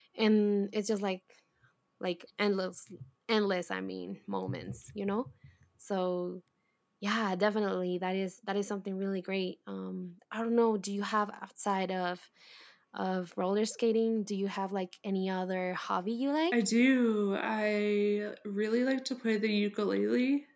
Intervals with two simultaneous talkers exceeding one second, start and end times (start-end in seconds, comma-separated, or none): none